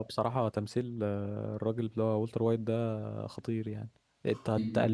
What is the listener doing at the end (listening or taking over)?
listening